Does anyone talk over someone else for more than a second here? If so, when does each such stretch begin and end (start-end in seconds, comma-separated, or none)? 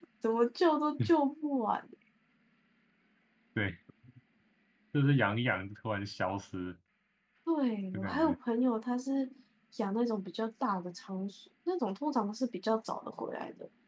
none